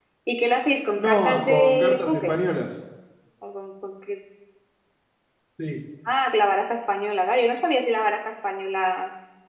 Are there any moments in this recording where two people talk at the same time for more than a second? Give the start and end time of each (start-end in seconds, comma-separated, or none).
1.0-2.3